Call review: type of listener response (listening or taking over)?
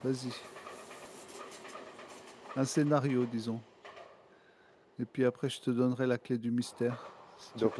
taking over